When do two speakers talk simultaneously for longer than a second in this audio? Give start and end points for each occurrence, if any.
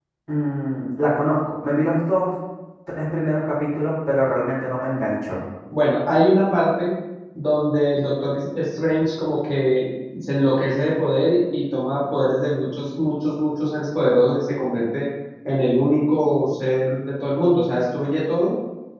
none

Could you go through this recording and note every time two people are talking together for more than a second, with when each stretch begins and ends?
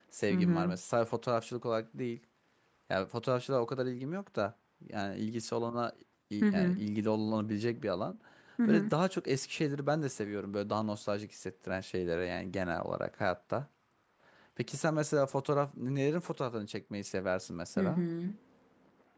none

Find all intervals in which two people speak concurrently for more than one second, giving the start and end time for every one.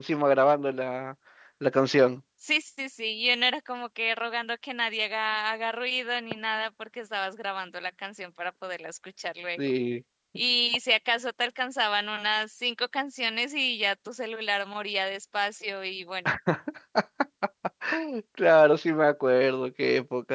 none

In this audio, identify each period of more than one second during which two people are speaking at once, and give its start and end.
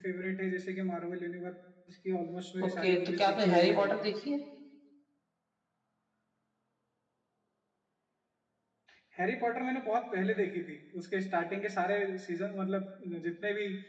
2.6-4.0

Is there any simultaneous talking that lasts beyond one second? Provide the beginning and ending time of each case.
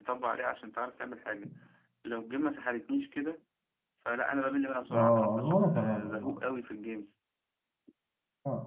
4.9-6.3

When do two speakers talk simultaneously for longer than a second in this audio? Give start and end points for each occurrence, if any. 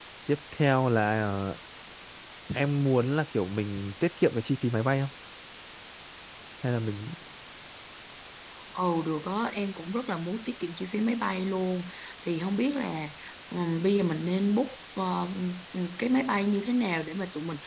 none

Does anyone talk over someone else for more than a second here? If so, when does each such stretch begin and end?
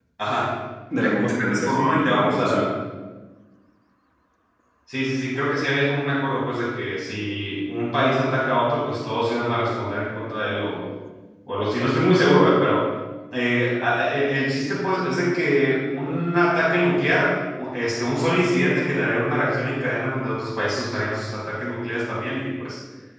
1.0-2.7

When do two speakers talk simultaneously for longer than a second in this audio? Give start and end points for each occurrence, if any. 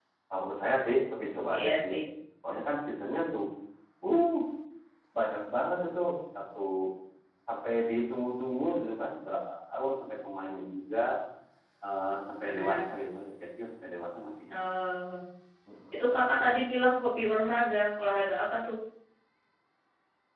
none

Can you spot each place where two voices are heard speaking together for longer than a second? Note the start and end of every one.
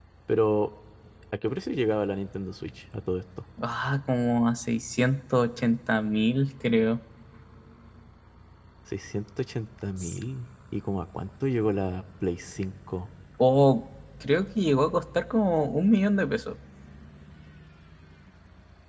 none

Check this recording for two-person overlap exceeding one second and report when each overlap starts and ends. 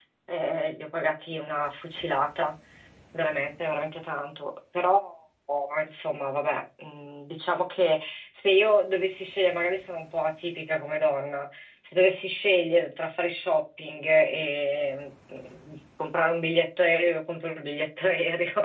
none

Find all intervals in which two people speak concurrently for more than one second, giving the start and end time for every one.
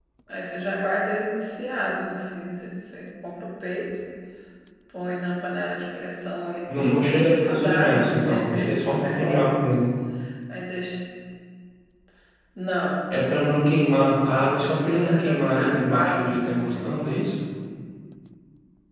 6.7-9.6, 13.9-17.3

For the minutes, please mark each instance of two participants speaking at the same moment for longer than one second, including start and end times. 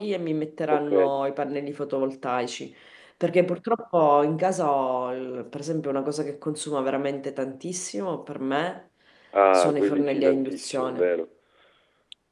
9.5-11.1

